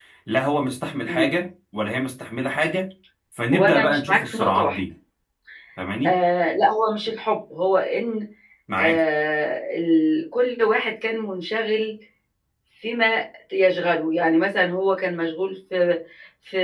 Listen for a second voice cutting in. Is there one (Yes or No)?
Yes